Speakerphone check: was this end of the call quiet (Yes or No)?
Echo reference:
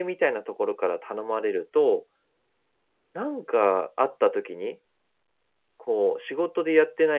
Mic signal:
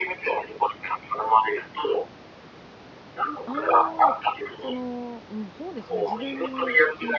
No